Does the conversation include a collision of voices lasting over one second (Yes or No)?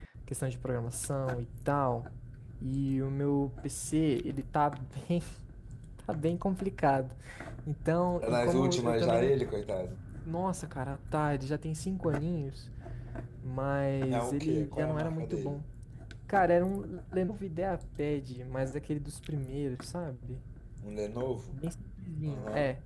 Yes